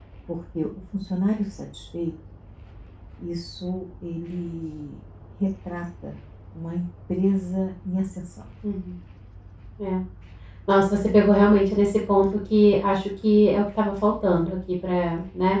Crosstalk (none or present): none